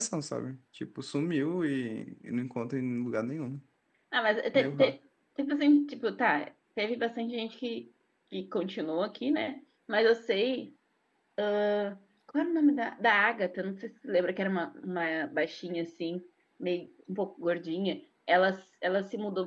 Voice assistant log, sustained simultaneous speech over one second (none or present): none